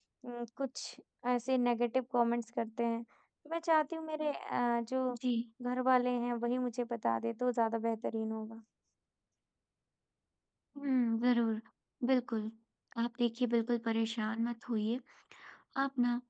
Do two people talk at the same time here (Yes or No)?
No